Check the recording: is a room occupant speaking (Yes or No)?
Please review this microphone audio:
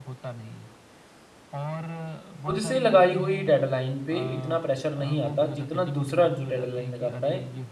Yes